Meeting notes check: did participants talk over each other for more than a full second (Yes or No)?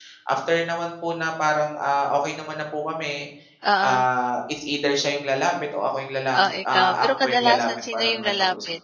Yes